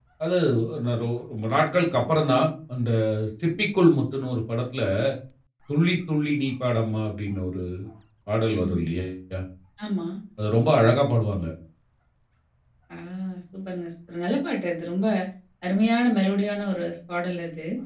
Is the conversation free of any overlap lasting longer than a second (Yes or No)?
Yes